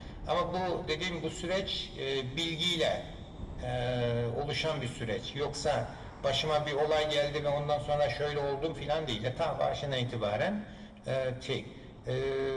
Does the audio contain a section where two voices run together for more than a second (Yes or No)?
No